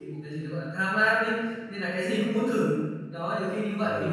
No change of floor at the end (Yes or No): No